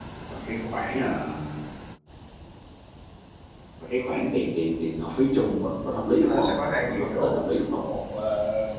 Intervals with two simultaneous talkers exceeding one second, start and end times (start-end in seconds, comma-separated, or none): 6.2-7.5